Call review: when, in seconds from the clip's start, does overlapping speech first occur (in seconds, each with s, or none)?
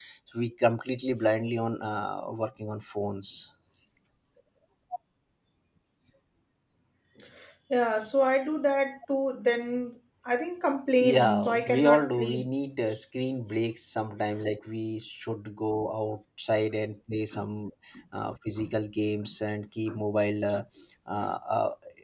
11.0 s